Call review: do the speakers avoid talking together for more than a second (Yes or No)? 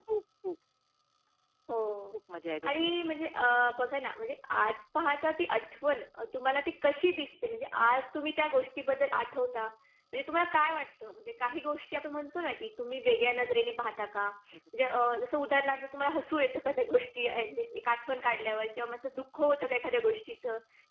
Yes